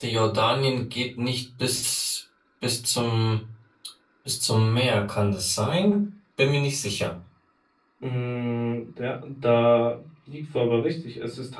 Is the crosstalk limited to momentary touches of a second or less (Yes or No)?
Yes